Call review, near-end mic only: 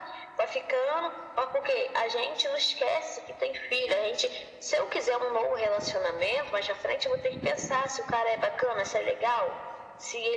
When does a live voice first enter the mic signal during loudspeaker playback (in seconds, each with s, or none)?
none